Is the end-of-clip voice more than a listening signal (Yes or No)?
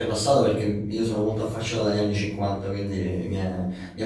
Yes